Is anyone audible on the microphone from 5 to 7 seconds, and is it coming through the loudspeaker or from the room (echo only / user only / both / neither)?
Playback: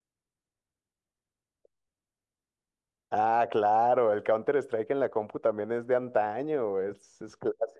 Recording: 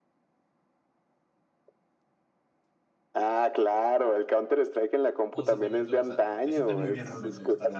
both